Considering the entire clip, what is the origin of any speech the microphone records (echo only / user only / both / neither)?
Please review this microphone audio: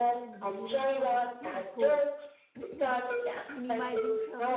both